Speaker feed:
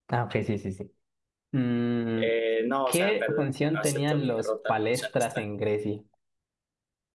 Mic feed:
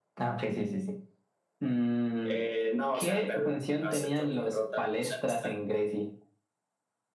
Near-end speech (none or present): none